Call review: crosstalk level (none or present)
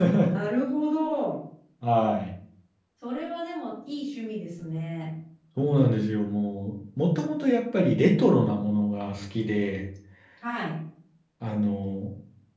none